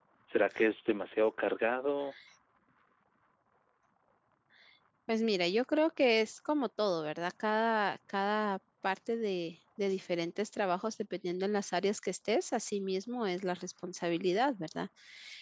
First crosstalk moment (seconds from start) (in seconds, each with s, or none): none